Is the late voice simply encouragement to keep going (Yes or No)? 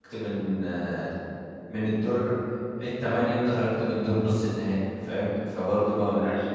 No